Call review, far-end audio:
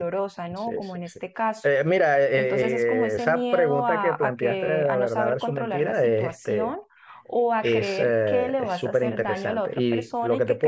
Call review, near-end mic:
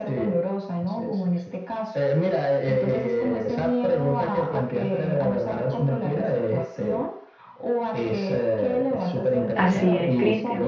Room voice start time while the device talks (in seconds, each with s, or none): 9.6 s